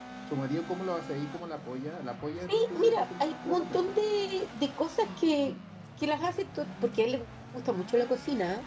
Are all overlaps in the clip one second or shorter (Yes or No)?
No